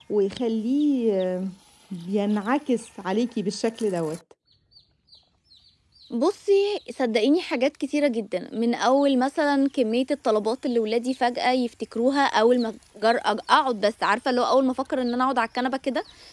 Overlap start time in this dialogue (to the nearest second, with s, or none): none